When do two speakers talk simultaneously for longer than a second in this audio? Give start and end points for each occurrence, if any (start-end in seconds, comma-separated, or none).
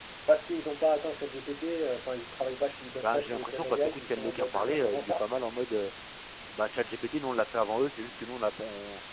3.0-5.2